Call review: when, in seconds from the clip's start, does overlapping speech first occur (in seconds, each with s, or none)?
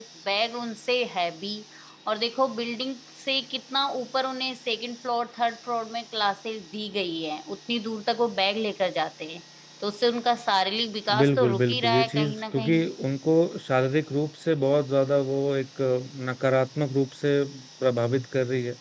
11.1 s